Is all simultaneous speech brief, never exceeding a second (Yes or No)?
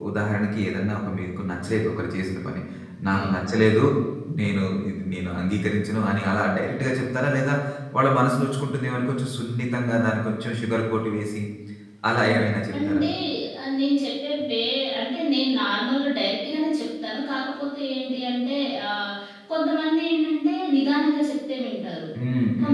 Yes